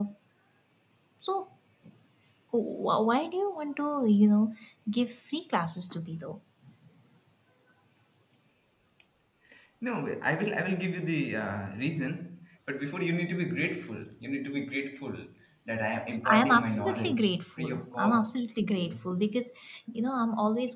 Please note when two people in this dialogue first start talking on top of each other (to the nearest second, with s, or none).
16 s